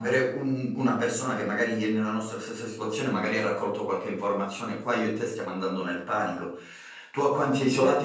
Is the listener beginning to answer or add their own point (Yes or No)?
No